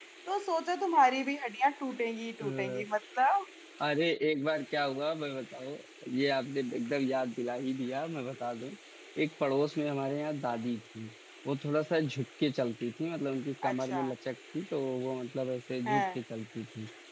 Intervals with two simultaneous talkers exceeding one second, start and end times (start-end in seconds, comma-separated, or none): none